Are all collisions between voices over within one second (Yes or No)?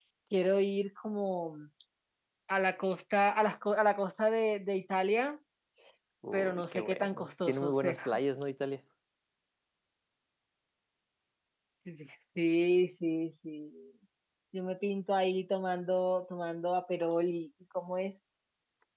No